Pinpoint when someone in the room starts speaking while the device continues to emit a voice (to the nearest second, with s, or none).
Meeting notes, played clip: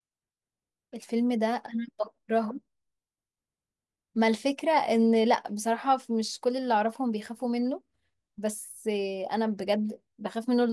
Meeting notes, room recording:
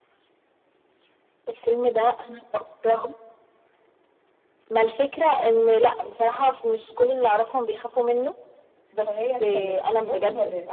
9 s